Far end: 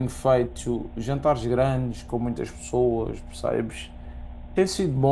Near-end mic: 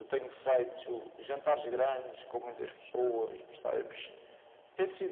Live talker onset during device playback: none

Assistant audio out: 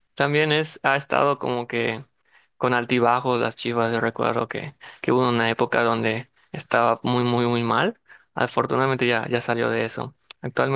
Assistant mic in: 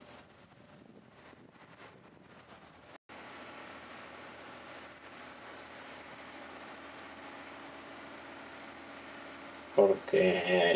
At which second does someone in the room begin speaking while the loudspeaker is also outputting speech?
9.7 s

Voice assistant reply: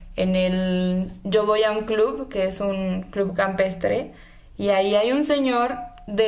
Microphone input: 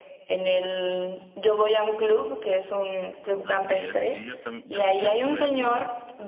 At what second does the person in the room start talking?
3.4 s

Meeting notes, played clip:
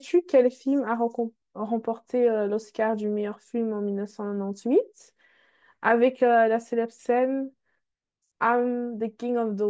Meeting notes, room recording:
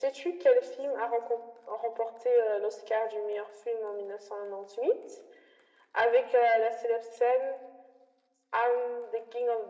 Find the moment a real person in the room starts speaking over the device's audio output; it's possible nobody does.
none

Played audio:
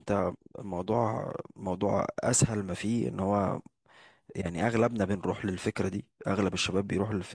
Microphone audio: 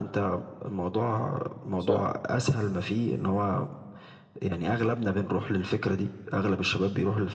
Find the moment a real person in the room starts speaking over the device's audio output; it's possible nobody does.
1.8 s

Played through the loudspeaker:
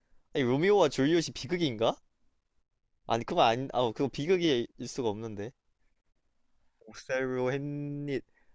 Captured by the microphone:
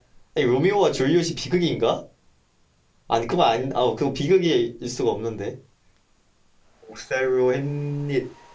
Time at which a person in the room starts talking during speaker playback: none

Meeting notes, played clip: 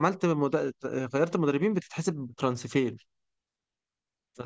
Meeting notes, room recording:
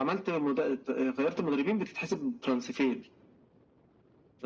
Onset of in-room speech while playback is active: none

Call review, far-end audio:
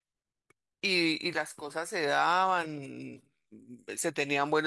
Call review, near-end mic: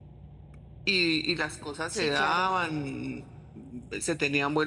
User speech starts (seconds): 1.9 s

